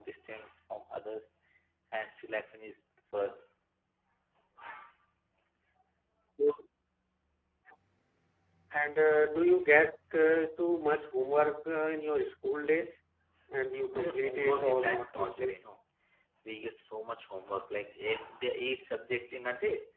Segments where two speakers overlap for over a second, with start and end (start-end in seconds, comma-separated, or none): 13.9-15.5